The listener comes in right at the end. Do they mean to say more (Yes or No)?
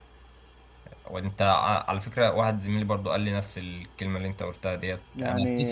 No